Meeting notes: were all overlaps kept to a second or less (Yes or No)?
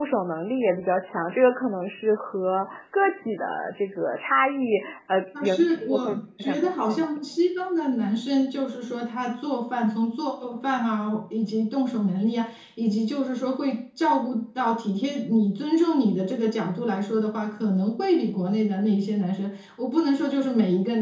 No